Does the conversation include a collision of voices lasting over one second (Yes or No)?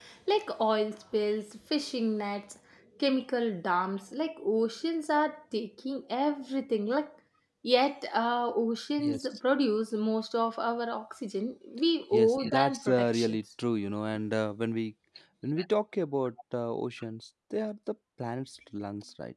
Yes